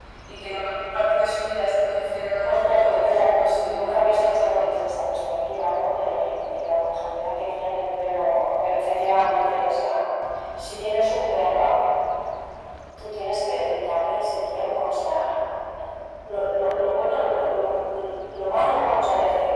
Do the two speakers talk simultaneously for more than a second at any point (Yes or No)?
Yes